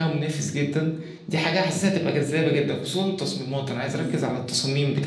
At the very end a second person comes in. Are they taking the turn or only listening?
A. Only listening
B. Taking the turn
A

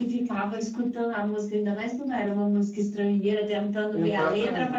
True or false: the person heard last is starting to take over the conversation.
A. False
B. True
A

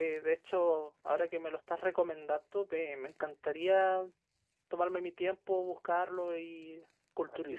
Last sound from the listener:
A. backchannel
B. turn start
B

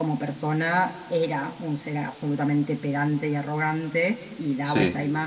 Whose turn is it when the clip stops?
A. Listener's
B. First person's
B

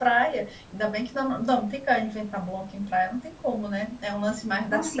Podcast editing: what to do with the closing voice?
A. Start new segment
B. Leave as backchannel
B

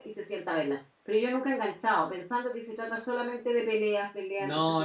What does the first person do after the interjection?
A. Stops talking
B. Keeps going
A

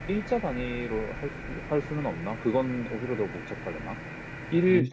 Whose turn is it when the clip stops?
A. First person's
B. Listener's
A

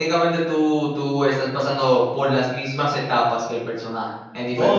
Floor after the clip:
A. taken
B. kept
A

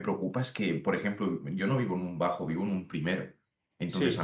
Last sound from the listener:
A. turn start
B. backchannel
B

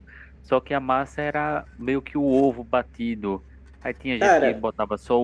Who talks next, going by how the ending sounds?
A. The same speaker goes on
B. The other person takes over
A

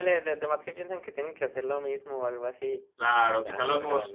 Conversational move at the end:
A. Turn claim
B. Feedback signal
A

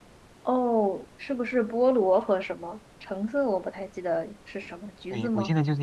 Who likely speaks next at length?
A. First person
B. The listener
B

